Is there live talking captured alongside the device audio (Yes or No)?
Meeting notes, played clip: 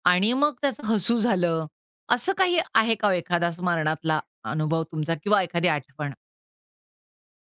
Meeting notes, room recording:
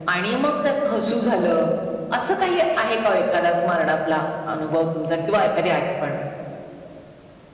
No